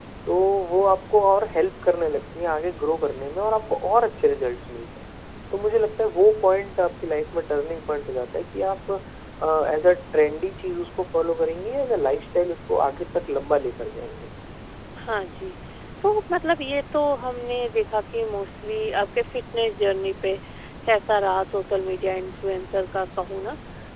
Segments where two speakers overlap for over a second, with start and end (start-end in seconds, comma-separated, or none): none